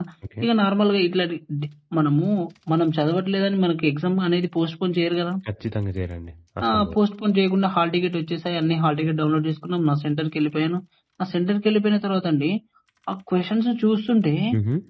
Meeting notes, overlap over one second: none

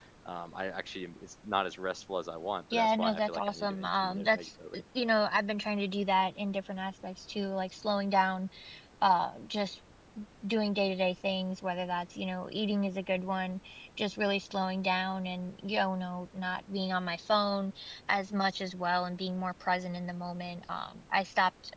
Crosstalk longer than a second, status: present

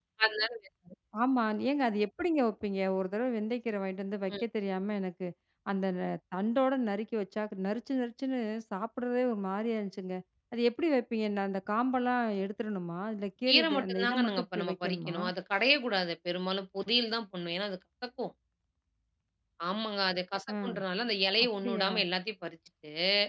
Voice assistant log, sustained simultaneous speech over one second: present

